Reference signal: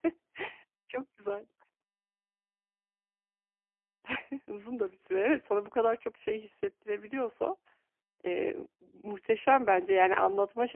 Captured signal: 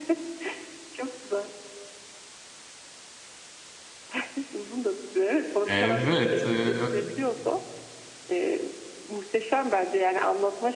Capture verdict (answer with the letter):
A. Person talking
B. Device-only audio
A